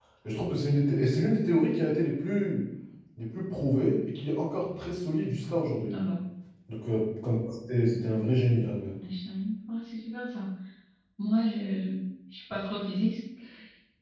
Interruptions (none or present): none